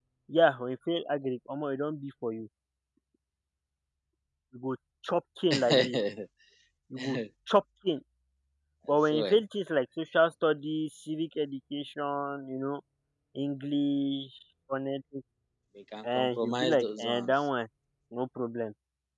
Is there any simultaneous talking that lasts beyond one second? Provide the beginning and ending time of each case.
16.0-17.3

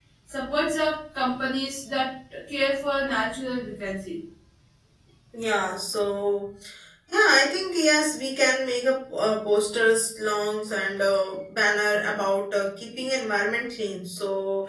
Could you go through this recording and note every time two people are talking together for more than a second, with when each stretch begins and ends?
none

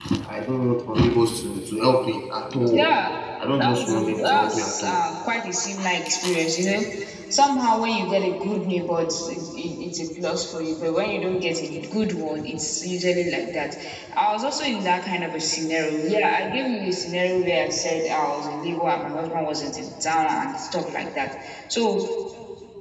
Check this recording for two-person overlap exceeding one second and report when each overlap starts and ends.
3.6-5.0

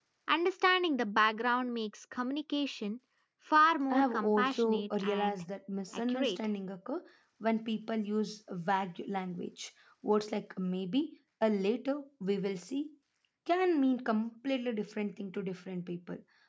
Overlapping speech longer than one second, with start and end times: 3.9-5.4

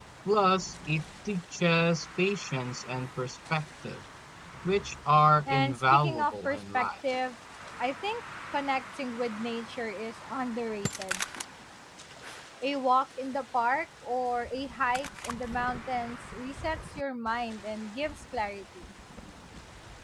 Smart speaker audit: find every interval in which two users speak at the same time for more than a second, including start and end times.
5.5-6.9

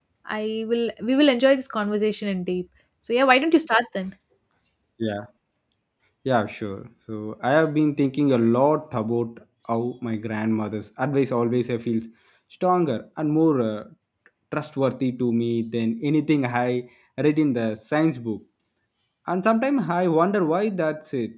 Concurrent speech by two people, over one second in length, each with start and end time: none

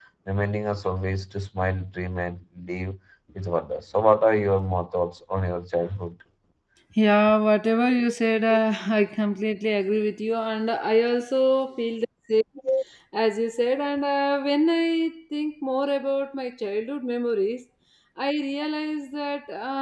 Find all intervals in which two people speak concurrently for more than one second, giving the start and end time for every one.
none

